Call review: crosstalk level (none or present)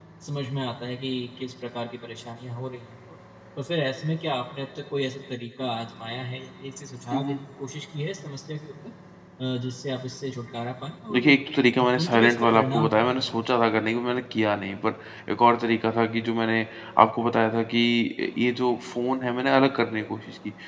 present